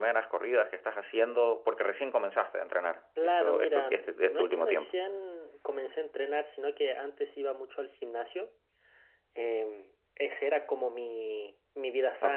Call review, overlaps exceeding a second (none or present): present